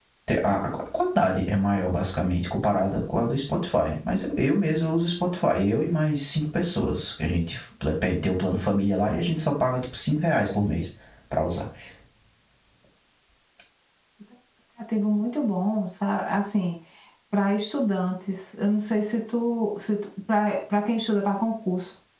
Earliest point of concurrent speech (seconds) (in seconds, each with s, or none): none